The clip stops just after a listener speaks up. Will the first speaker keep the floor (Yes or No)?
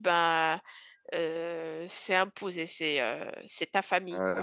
No